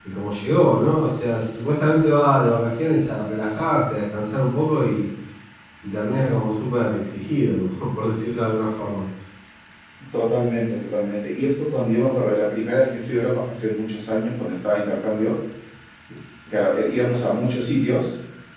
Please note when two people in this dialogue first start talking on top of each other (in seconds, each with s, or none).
none